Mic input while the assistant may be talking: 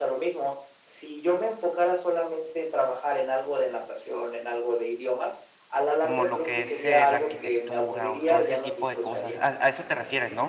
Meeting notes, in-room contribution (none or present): present